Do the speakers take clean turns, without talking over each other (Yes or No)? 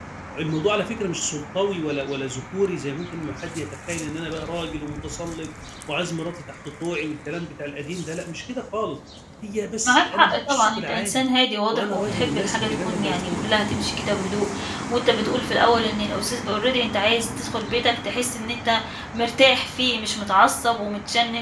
No